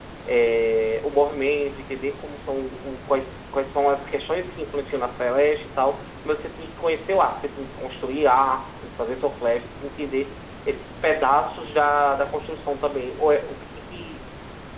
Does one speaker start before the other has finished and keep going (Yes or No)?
No